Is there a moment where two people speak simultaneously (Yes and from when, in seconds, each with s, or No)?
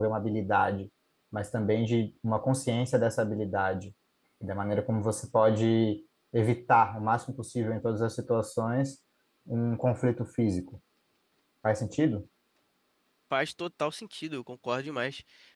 No